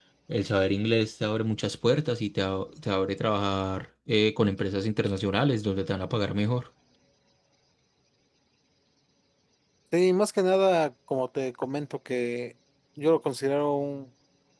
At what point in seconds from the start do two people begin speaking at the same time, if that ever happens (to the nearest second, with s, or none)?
none